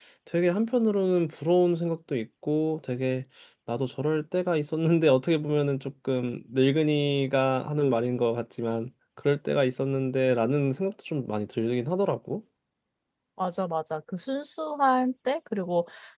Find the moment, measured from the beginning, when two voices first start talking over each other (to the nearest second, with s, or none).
none